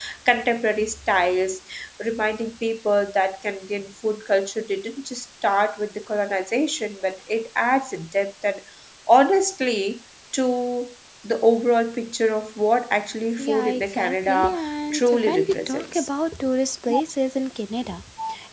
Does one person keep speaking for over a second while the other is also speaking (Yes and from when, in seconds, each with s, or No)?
Yes, from 13.4 s